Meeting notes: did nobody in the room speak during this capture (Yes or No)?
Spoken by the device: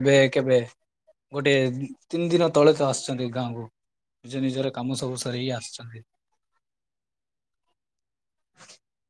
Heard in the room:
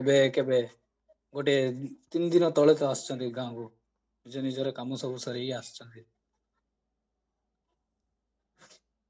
Yes